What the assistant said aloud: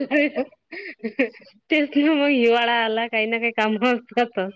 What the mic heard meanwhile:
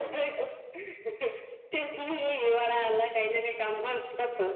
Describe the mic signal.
echo only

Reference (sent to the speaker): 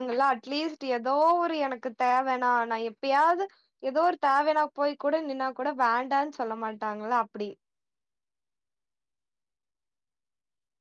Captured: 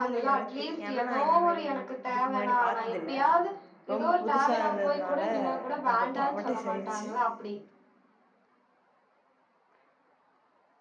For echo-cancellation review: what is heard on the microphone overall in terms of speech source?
both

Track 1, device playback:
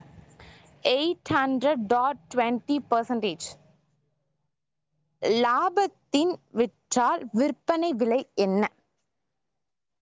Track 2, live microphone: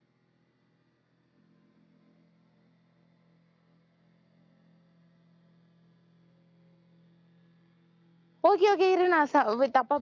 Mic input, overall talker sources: user only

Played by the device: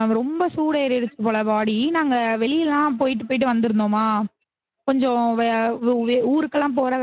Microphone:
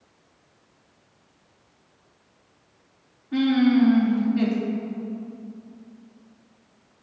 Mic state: user only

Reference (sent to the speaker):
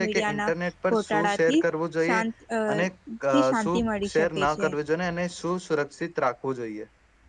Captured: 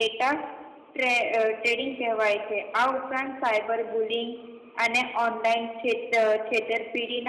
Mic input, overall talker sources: user only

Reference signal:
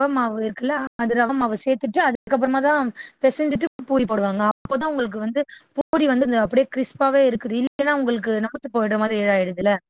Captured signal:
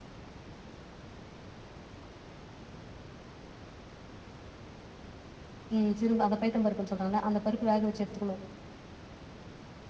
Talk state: user only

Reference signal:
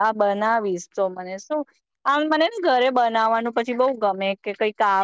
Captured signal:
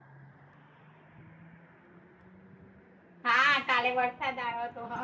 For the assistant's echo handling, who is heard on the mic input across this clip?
user only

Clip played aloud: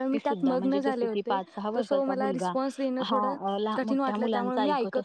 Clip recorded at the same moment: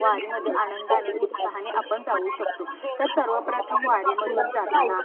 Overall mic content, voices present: both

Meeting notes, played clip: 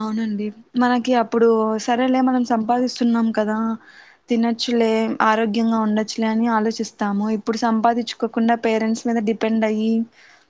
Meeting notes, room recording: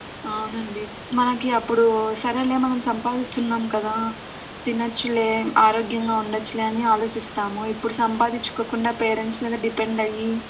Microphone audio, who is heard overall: echo only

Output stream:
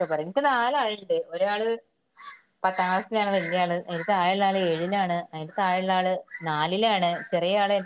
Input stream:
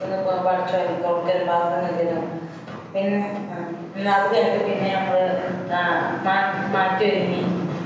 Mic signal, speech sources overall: user only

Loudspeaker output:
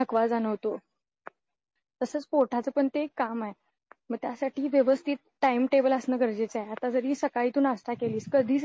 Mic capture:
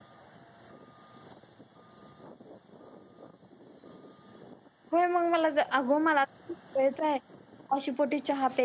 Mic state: user only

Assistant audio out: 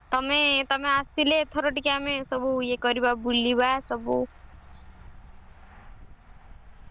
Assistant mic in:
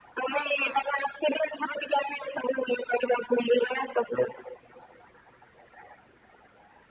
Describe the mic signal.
both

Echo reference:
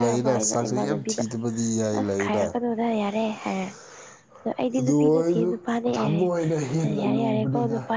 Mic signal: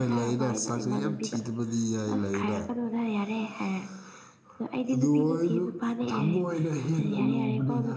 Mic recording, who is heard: echo only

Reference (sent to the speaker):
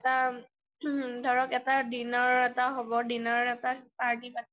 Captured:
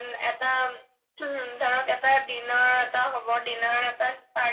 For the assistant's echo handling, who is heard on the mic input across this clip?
echo only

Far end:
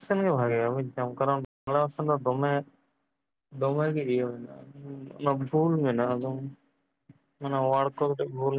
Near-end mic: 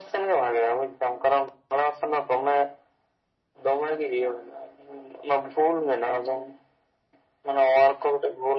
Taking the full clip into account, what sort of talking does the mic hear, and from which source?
echo only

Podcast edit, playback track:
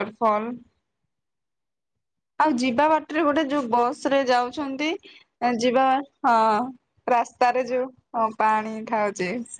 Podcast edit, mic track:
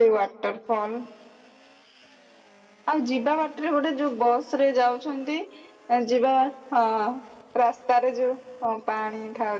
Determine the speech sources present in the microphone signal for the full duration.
echo only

